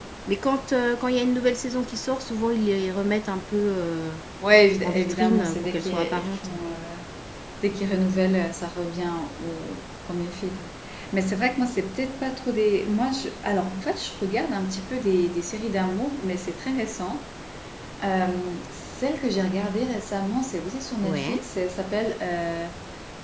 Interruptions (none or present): present